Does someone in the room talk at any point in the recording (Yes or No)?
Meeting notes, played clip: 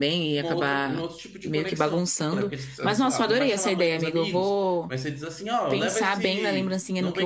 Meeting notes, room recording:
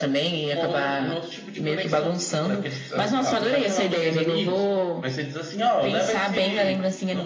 No